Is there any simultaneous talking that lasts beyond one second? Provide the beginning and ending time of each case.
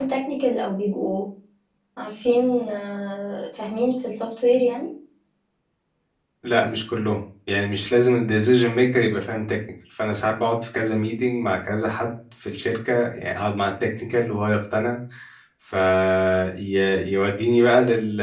none

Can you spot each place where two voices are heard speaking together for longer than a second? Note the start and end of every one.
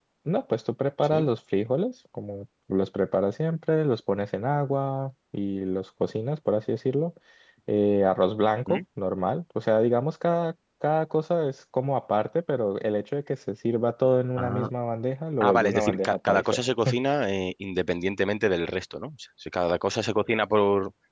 15.4-16.6

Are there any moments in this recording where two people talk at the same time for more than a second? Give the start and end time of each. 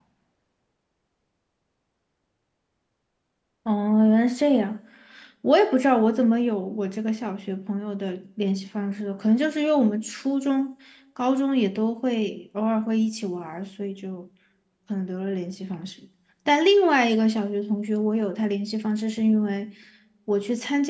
none

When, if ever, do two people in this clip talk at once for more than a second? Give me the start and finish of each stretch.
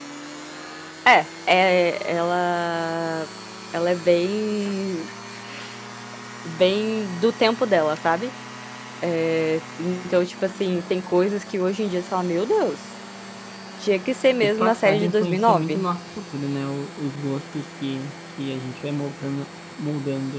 14.4-15.8

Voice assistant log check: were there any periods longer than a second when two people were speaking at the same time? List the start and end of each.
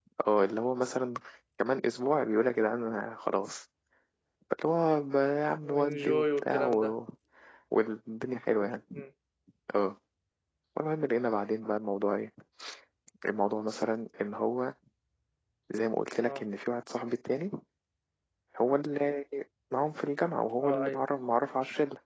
5.6-6.9

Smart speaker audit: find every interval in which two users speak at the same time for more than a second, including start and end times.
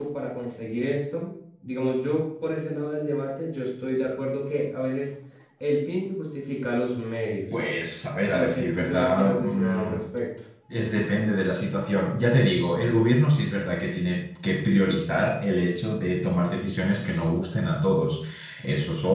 8.3-10.0

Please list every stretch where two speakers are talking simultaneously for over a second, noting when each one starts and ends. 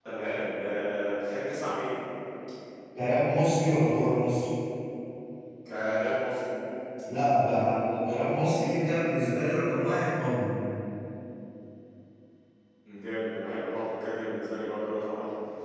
none

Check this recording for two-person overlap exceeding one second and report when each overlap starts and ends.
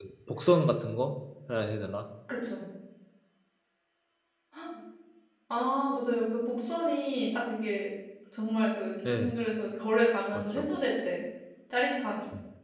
none

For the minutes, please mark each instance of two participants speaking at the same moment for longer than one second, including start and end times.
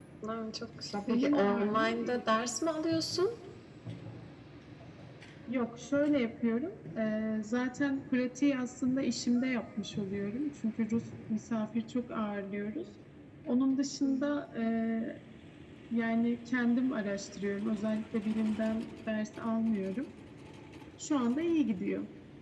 1.1-2.4

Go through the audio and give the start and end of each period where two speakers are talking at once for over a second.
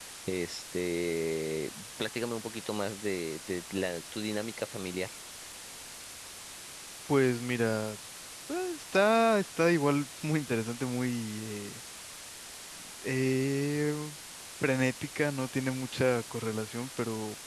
none

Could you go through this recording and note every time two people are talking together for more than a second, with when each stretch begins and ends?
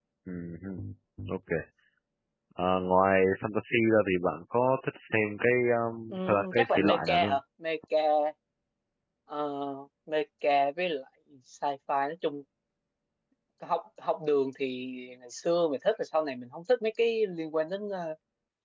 6.1-7.4

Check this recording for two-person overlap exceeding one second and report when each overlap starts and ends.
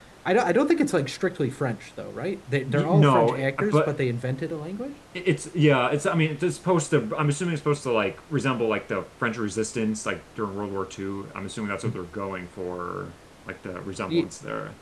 2.7-4.0

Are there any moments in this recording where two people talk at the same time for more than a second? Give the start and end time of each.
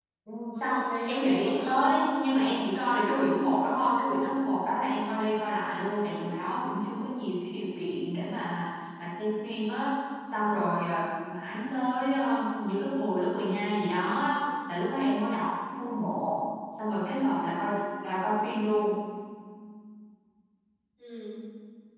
0.5-1.9

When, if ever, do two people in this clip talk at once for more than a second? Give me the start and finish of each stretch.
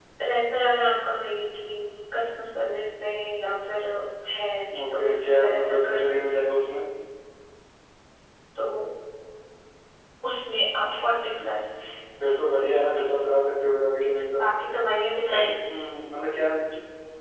4.9-6.5

